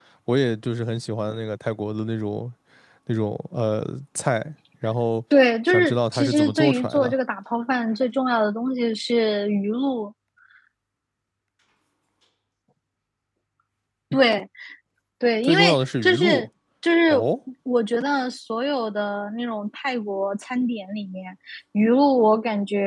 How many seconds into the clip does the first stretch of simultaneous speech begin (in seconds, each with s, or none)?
5.7 s